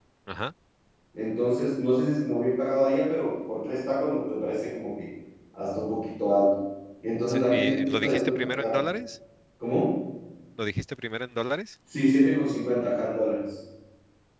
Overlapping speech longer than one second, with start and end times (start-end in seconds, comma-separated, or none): 7.3-8.8